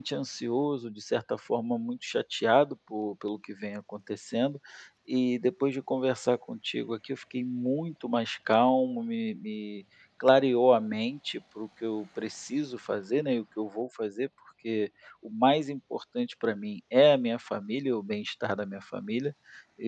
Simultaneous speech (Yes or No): No